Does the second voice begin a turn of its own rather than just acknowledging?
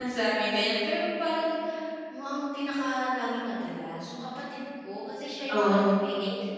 No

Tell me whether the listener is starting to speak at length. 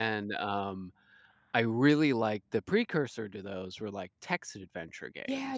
No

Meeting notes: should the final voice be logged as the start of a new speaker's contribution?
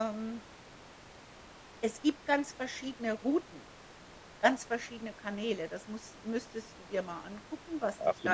Yes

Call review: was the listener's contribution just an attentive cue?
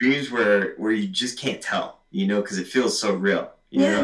No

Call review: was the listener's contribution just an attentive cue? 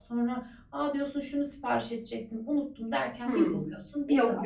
No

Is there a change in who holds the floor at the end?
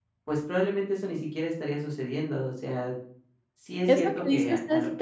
Yes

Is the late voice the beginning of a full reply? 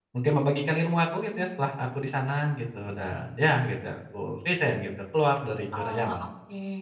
Yes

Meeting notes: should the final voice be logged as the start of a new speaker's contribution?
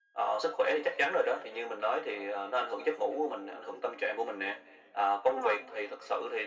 No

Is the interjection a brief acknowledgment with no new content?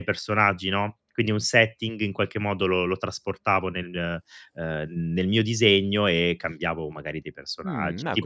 No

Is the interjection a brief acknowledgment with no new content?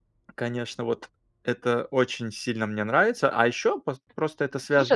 No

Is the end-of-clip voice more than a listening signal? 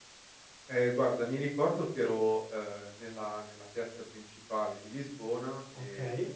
No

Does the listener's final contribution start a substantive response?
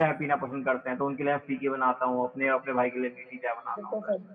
Yes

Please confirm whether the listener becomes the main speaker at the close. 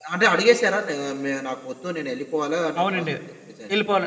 Yes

